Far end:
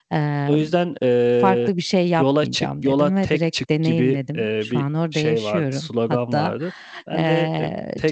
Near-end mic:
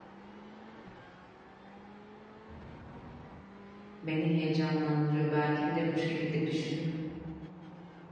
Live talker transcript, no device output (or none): beni heyecanlandırıyor. Belki bir de bu şekilde düşünüp,